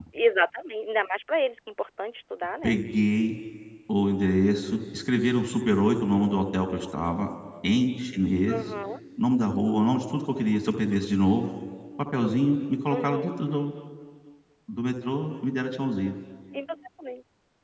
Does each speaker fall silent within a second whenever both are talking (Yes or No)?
Yes